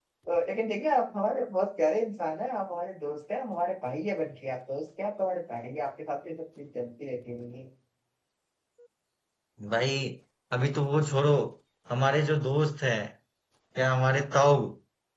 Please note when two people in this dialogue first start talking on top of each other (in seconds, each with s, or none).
none